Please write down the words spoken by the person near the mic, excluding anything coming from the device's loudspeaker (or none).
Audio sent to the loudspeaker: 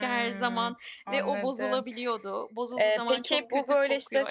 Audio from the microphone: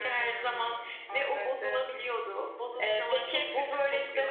none